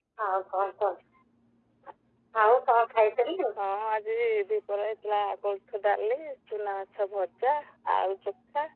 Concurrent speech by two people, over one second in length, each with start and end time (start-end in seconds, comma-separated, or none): none